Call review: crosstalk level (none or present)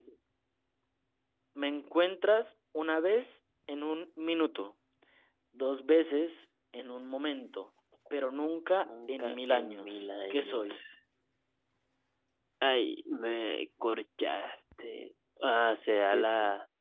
present